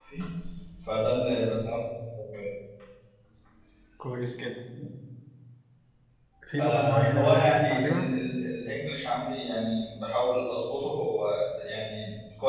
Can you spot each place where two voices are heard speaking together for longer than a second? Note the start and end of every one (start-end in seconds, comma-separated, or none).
6.6-8.1